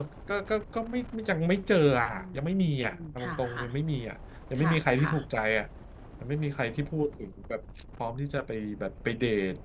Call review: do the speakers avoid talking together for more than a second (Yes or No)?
No